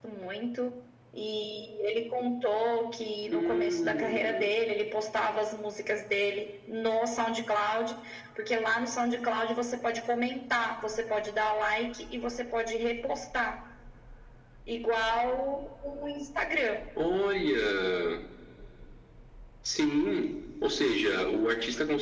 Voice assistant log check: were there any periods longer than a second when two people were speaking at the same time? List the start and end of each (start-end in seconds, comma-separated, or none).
3.3-4.5